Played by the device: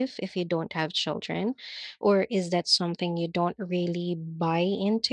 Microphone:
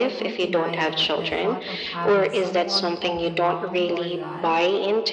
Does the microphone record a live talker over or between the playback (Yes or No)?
Yes